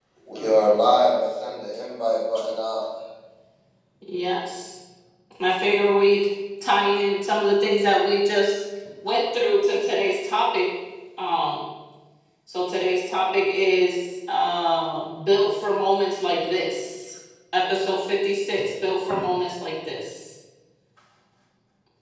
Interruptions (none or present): none